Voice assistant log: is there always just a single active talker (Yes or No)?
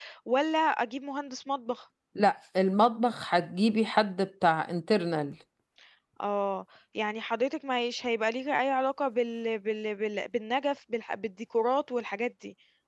Yes